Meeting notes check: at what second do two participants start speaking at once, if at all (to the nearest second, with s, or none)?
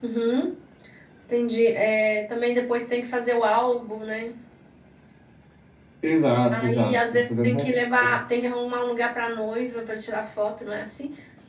7 s